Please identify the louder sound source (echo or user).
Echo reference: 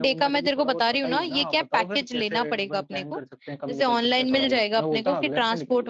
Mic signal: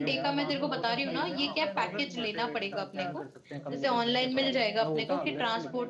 echo